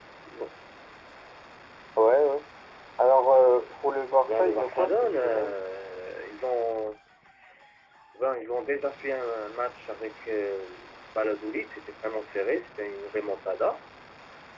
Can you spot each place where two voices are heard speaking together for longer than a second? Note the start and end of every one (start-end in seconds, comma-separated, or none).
4.3-5.6